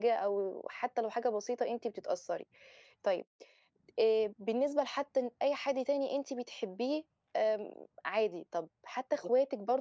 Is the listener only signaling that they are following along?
Yes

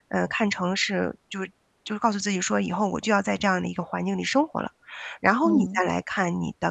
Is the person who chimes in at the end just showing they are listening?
Yes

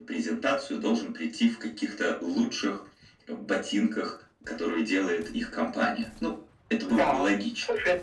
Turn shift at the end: Yes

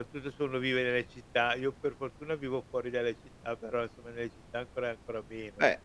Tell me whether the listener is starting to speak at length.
Yes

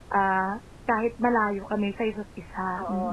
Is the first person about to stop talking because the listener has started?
Yes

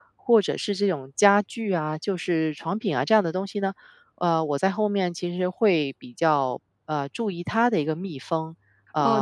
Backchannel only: No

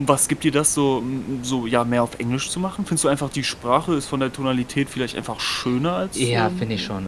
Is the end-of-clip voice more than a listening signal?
Yes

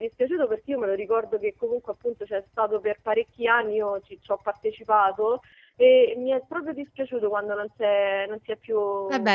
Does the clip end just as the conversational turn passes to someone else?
Yes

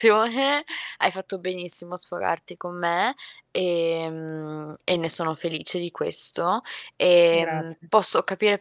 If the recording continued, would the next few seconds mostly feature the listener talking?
No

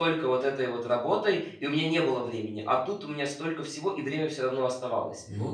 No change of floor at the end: No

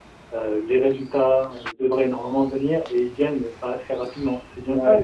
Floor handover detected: Yes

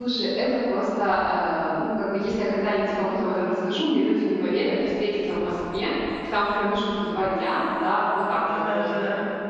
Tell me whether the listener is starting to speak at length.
No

